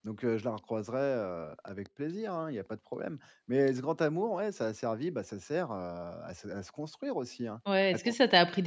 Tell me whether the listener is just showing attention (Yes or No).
No